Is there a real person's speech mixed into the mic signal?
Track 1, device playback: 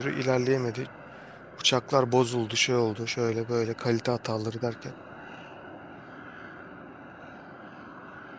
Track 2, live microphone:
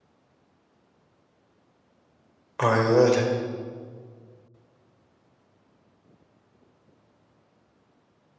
Yes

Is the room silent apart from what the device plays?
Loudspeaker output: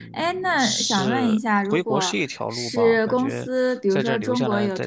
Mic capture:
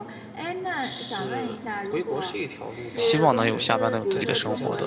No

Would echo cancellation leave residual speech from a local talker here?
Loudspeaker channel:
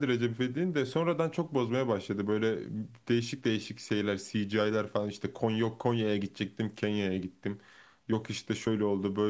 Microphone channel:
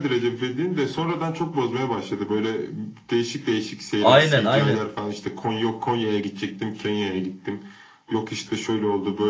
Yes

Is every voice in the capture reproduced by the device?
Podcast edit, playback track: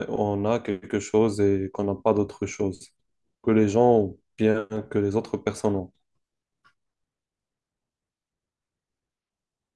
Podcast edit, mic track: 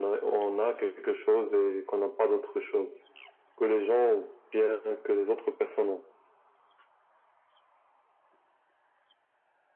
Yes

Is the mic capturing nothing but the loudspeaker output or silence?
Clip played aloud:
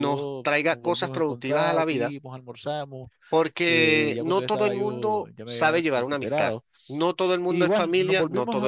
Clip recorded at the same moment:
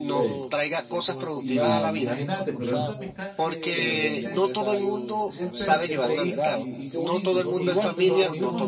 No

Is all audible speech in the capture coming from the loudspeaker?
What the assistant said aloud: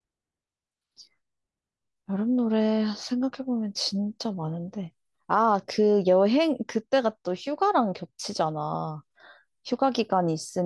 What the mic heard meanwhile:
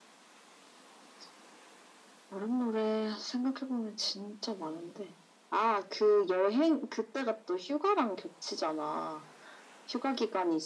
Yes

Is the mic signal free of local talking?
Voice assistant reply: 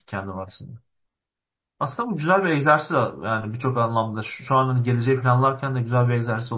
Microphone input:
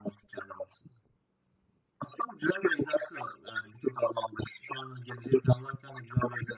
Yes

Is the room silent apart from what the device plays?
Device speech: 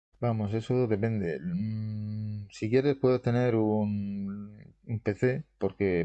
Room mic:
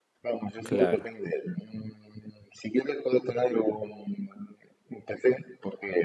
No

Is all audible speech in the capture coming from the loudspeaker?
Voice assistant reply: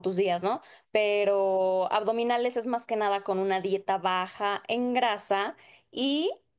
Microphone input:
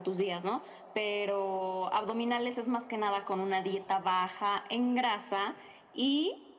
Yes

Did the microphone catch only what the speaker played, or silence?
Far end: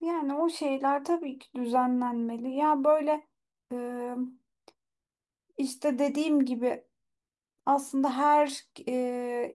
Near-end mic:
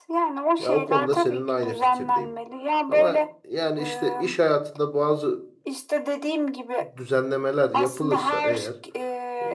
No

